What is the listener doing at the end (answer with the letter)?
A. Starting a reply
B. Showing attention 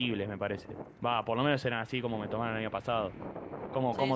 A